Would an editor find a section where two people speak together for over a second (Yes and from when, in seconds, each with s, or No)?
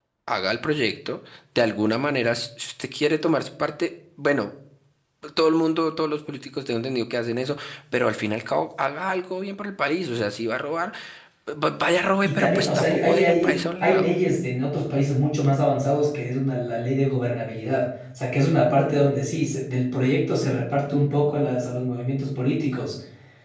Yes, from 12.2 s